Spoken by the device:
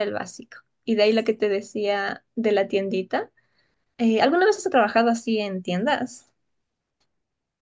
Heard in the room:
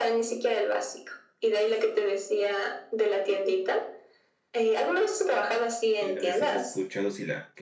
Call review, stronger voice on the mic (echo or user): echo